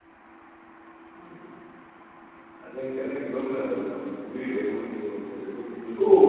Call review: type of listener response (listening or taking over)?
taking over